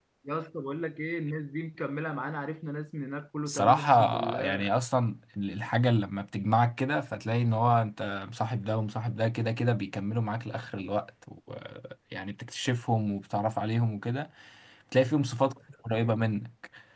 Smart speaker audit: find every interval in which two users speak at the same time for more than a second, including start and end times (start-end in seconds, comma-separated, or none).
3.5-4.7